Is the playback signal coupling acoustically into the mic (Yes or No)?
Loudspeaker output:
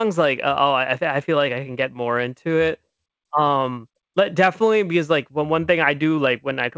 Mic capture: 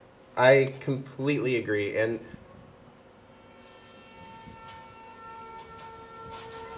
No